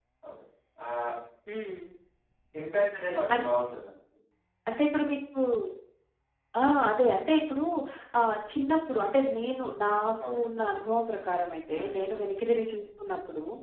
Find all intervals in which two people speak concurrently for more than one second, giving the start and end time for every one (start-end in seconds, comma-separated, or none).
none